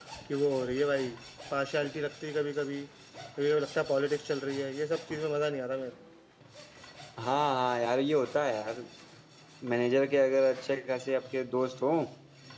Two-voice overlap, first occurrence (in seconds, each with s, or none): none